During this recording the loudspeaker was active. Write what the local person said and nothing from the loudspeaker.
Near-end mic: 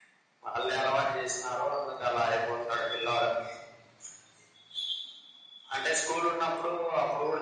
none

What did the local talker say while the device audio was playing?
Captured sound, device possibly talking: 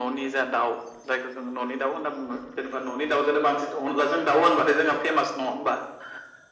none

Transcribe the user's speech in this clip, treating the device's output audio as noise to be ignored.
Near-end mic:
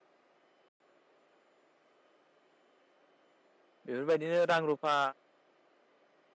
बेफोरबायदिनो रां रुफा

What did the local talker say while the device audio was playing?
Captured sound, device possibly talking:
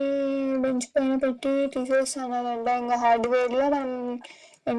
none

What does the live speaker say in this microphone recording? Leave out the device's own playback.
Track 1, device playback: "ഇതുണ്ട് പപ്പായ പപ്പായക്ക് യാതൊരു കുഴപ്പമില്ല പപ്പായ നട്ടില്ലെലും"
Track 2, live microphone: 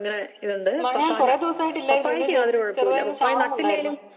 മഴയാ കുറേ ദിവ സയിട്ടല്ലായിരുന്നു. ഇന്ന് ചെറുതായിന്ന് ചാറുന്നു ഉണ്ടായിരുന്നു.

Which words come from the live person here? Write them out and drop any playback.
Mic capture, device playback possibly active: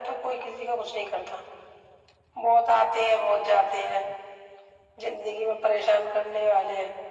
none

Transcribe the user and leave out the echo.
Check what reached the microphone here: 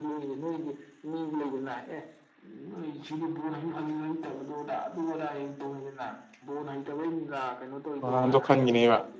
ꯑꯗꯣ ꯈꯥꯟꯒꯤꯅꯦꯕ

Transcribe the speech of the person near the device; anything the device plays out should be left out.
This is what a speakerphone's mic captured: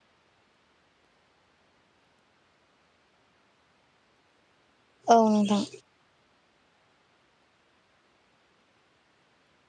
औ नोंथां

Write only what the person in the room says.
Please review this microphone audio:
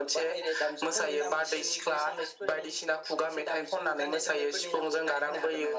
none

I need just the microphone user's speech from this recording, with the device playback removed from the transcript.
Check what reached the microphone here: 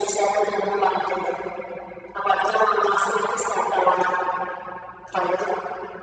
none

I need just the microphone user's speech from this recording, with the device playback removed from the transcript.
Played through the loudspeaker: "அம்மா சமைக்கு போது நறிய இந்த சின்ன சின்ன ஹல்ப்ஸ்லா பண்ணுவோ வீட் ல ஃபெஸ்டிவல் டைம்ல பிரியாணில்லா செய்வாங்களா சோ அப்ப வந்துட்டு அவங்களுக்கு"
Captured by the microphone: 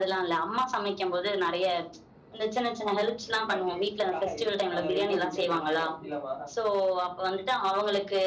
கட்டிங்ஸ் காய் ஆ வெஜிடபிள் கட்டிங்ஸ் அப்டிலாமா?

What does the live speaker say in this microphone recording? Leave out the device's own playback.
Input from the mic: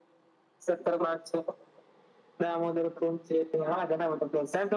none

